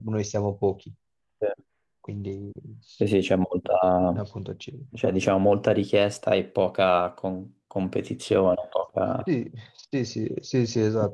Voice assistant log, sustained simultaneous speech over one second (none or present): none